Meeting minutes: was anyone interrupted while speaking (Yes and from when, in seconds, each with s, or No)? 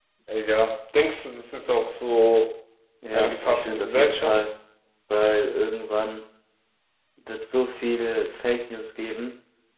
Yes, from 3.1 s